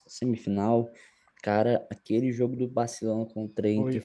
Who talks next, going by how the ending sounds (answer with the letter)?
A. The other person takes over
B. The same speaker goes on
A